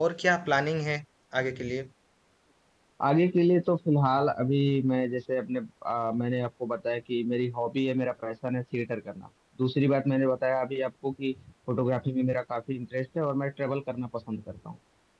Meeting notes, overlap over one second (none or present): none